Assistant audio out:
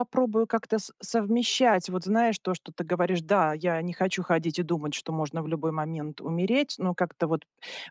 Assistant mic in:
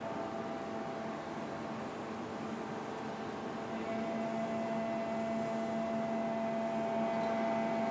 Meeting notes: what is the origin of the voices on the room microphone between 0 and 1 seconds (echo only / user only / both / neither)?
neither